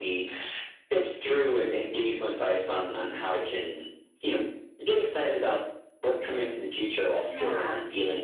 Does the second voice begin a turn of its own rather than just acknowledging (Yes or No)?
No